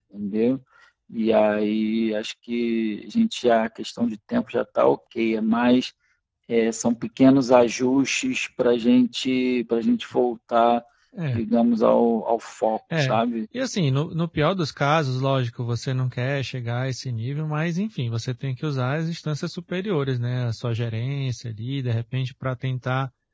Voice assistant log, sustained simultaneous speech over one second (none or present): none